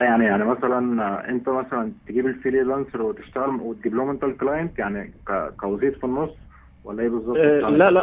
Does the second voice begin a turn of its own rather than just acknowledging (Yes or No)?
Yes